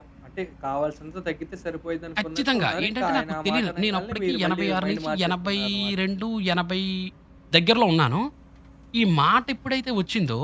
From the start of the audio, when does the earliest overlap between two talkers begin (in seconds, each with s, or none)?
2.2 s